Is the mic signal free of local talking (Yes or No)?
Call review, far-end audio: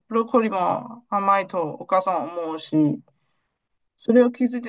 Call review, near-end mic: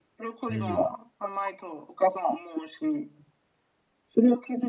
No